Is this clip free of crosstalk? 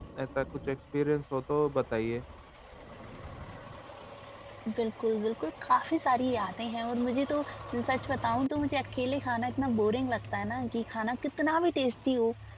Yes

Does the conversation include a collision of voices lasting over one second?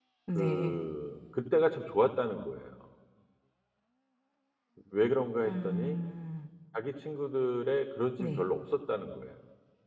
No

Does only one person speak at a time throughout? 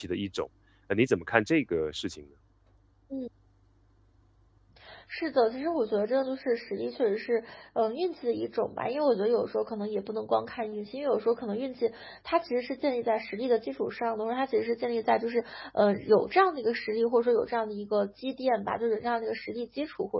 Yes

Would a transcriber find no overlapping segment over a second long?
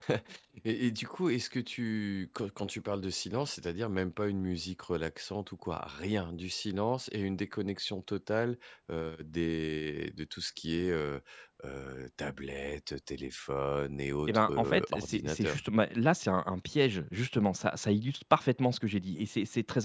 No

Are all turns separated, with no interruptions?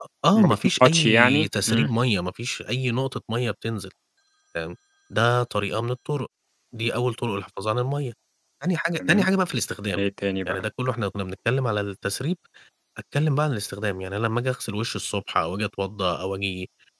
No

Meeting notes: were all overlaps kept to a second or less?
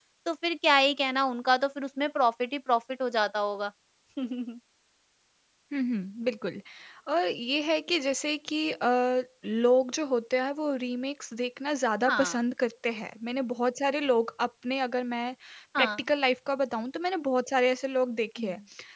Yes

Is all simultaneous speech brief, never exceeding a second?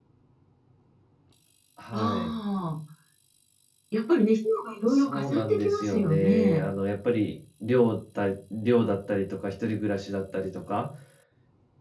No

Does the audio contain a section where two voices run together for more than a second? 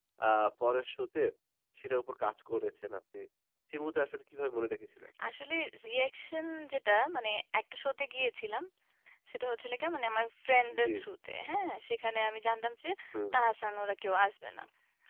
No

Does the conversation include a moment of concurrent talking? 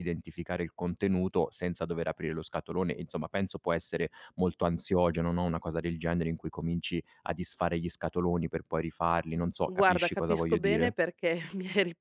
Yes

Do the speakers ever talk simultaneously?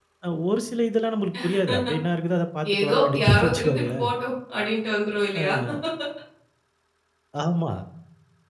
Yes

